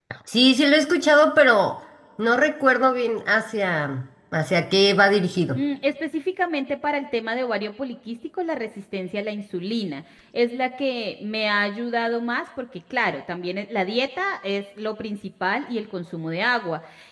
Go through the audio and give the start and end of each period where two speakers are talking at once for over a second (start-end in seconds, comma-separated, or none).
none